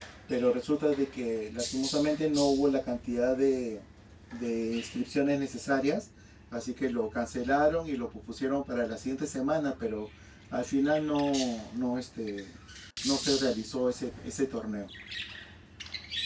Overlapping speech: No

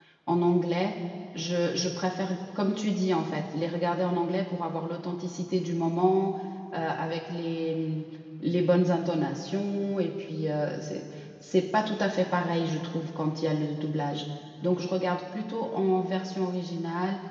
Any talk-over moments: No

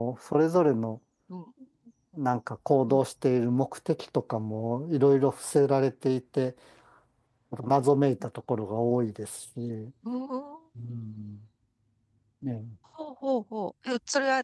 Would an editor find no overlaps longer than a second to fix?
Yes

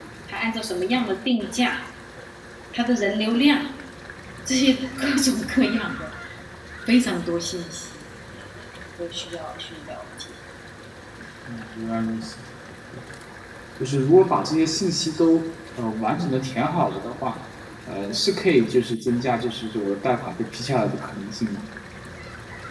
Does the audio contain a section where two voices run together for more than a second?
No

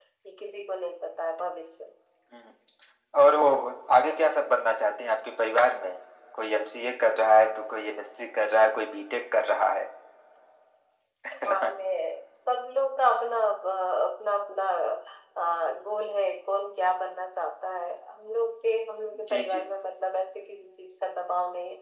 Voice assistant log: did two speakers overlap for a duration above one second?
No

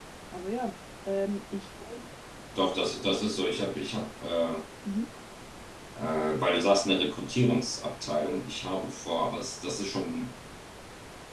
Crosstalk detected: No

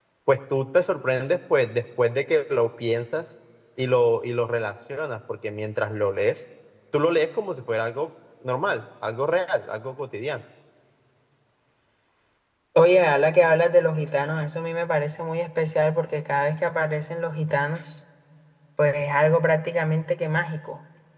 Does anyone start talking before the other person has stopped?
No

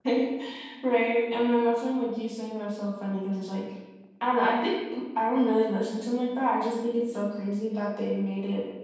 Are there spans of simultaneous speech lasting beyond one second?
No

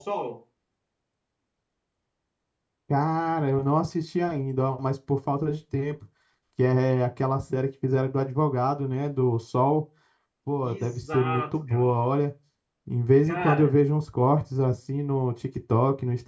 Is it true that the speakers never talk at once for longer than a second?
No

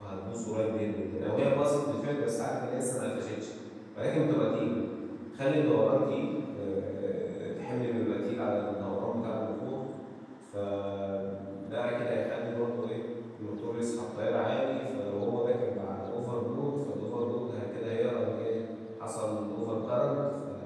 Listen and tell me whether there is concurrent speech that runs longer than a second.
No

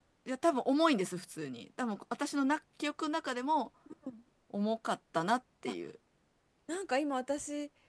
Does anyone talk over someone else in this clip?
No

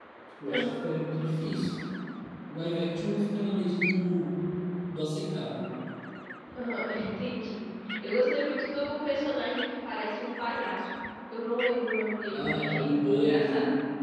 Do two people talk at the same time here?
Yes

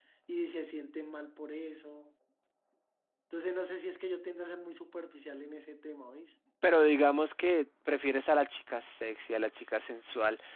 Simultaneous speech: No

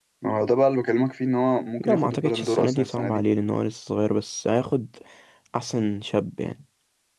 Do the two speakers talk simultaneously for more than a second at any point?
Yes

